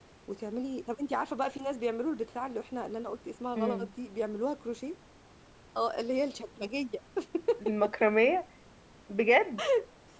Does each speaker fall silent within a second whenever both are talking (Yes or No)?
Yes